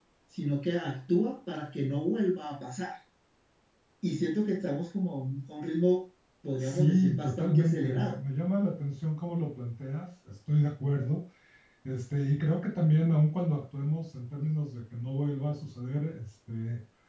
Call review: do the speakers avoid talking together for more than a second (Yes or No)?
No